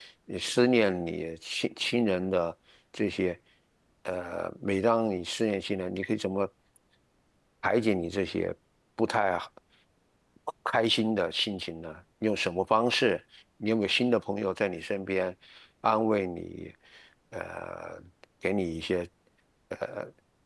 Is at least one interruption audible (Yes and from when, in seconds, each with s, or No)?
No